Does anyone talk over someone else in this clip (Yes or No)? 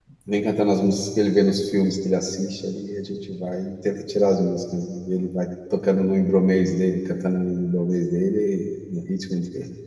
No